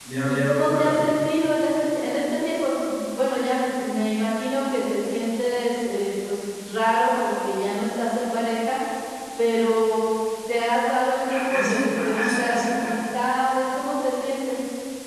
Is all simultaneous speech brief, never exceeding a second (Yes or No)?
No